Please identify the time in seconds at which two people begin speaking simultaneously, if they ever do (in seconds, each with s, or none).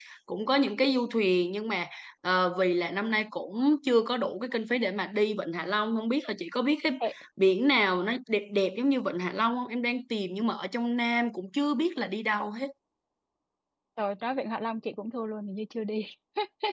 none